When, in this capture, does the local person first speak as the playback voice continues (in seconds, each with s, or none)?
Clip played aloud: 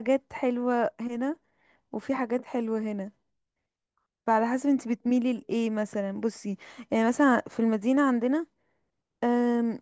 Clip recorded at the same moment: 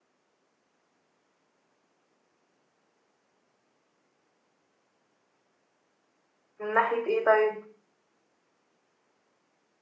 6.6 s